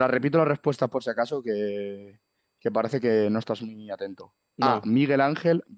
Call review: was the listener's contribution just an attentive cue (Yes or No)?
Yes